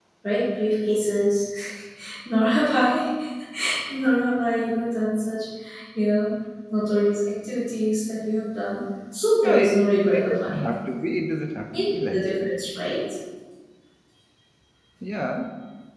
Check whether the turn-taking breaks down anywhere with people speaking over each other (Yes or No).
Yes